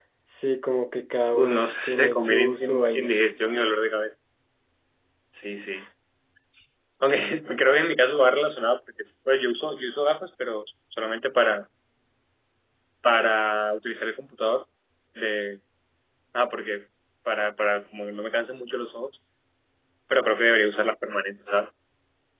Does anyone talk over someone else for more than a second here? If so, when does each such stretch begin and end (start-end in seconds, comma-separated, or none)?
1.3-3.1